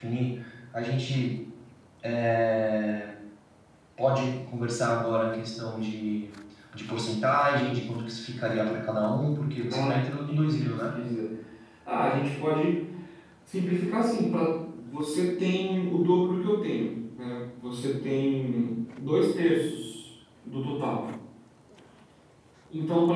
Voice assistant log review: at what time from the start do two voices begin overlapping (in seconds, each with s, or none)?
9.7 s